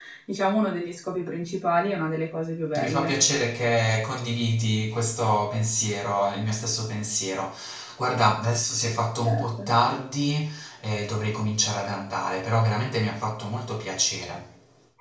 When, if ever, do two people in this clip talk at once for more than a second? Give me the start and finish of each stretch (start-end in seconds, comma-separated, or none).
none